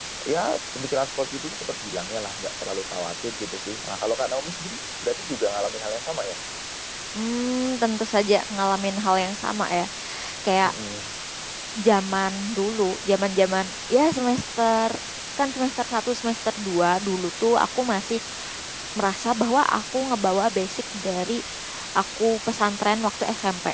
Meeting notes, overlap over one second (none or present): none